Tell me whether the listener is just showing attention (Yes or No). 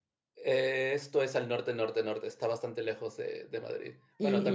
No